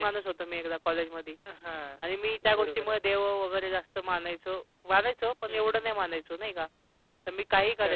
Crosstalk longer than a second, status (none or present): none